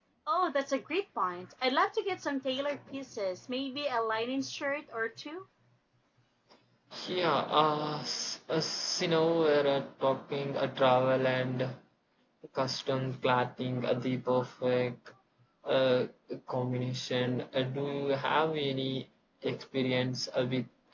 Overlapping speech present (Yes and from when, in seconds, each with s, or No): No